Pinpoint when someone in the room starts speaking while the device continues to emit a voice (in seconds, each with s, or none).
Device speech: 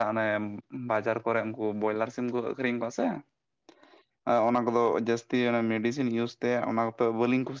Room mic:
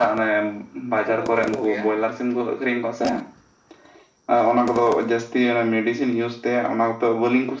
1.0 s